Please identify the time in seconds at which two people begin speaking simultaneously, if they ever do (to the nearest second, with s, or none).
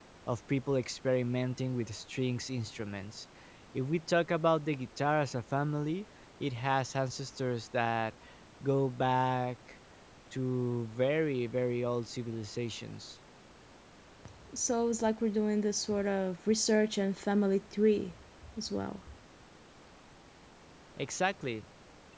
none